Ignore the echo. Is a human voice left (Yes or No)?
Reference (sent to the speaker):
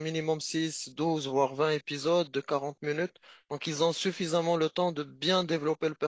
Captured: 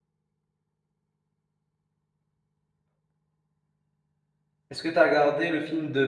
Yes